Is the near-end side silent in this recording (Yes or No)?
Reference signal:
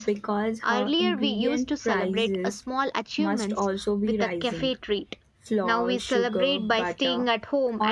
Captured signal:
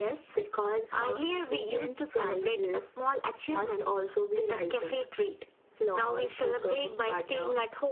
Yes